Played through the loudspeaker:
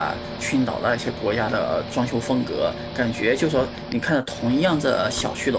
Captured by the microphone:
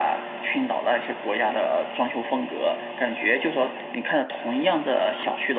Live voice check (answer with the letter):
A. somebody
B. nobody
B